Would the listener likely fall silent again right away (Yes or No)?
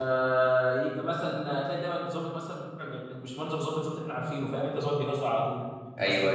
Yes